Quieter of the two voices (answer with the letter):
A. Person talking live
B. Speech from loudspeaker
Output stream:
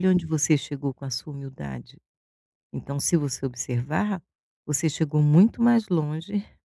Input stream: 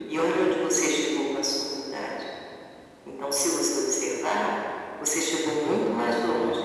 A